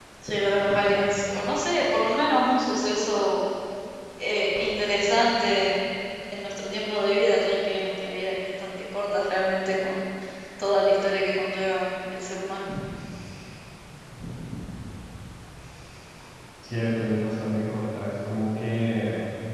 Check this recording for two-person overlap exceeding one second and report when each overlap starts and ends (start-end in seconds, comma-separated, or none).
none